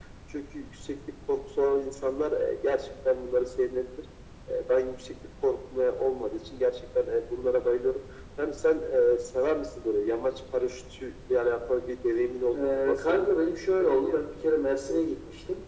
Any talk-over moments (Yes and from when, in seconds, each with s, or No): Yes, from 12.5 s